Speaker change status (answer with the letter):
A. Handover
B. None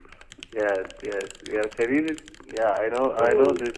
B